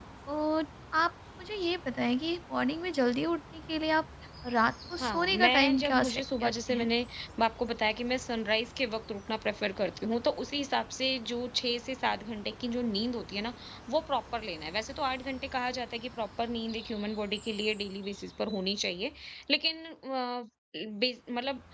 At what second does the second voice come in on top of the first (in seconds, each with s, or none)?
5.0 s